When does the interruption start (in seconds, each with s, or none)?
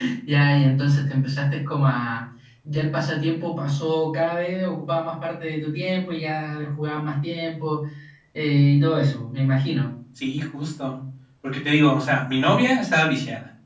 none